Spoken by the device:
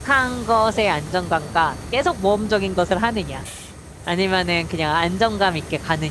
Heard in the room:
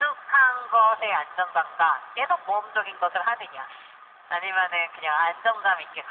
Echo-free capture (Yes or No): No